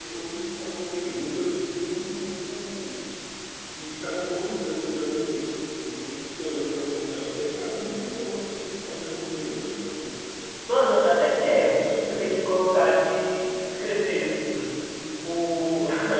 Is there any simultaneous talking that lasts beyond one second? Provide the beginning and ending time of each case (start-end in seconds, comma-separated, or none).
10.9-12.1